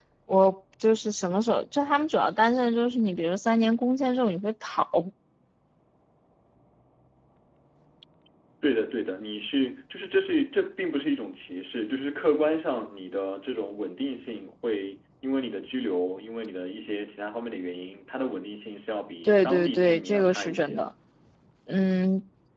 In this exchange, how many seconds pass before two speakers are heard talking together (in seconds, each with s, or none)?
19.2 s